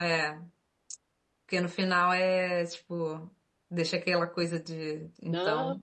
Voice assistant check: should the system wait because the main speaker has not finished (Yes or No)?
No